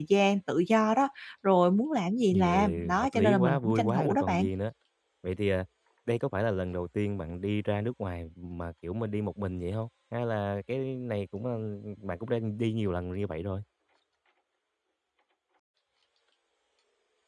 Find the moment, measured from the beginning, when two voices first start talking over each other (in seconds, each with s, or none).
2.3 s